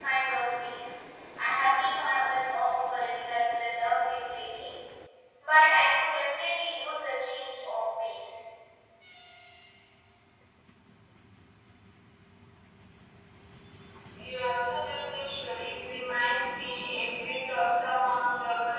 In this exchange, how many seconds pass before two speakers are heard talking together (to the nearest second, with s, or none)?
none